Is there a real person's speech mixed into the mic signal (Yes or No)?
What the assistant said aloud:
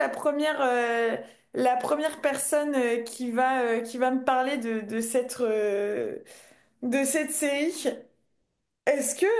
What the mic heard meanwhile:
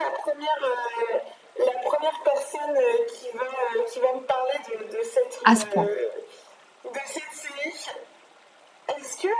Yes